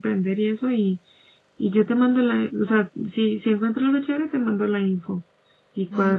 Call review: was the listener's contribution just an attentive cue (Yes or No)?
No